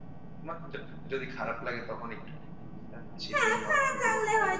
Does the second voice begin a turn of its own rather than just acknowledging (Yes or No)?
Yes